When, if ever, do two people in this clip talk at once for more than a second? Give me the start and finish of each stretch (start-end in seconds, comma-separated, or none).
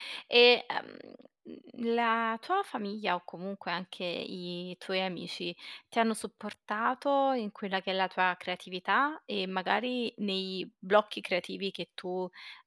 none